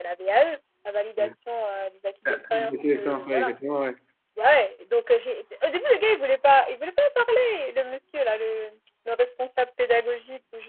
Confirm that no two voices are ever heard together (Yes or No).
No